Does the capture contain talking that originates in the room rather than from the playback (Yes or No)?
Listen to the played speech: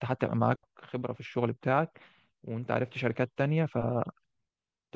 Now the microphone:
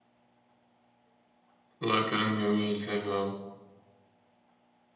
Yes